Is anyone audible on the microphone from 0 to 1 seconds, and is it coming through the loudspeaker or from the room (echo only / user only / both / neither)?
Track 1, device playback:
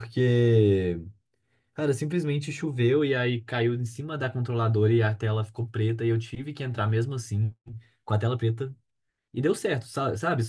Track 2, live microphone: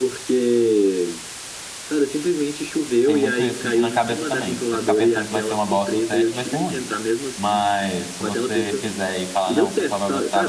echo only